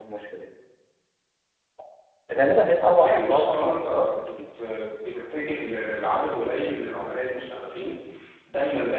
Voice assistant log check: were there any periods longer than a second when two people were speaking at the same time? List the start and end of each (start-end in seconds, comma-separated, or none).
3.0-4.3